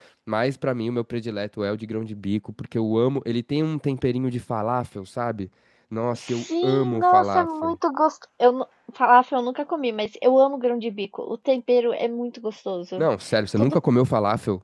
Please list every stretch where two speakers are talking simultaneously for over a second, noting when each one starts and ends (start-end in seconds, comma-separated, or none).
6.3-7.8